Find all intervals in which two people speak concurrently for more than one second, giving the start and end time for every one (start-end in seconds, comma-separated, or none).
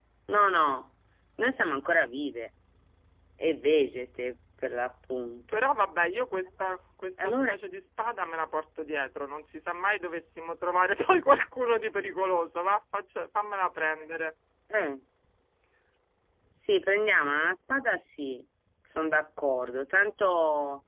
none